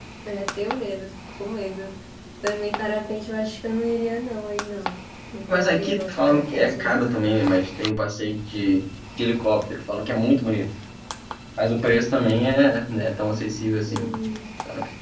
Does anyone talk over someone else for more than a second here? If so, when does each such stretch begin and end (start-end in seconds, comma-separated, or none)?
5.5-7.0